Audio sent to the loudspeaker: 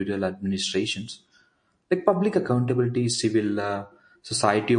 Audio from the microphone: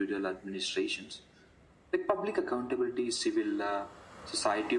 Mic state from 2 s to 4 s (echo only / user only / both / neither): echo only